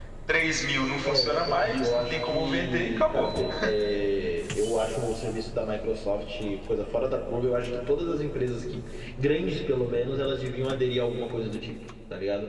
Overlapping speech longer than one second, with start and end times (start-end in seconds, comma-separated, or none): 1.0-3.3